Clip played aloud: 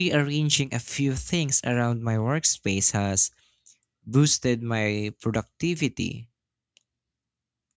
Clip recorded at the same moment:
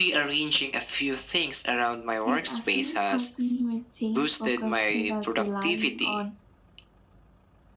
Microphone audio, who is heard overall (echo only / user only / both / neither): both